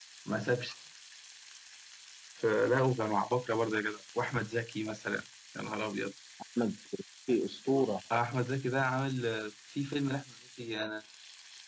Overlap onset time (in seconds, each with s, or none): none